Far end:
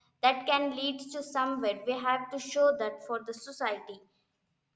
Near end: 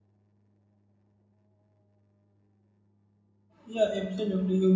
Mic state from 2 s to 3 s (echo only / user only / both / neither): neither